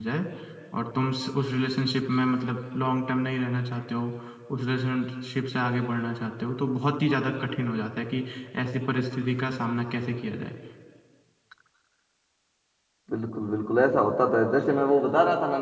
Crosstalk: none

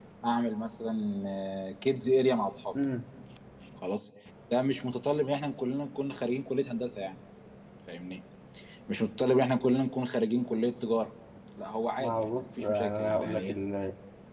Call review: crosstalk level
present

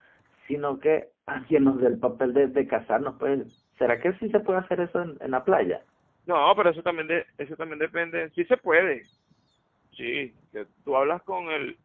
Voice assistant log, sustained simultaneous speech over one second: none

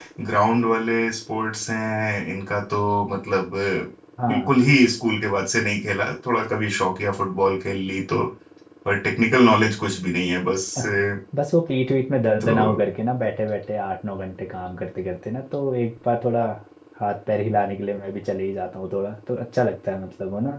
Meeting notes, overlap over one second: none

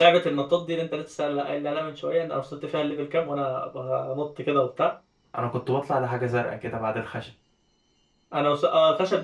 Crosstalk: none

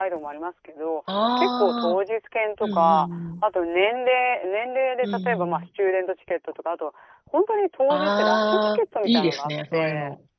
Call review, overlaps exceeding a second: present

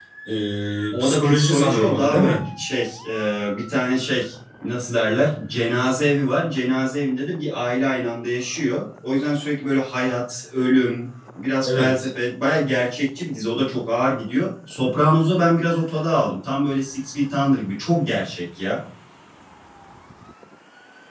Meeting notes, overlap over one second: present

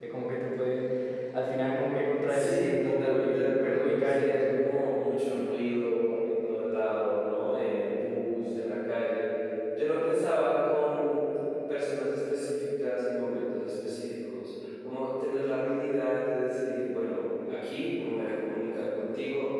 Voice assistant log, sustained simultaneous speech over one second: present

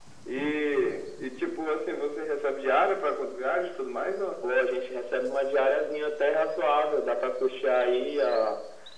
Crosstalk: none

